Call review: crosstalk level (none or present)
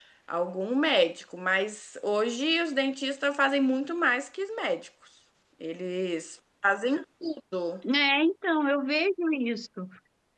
none